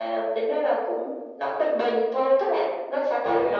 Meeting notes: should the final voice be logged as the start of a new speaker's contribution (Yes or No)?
No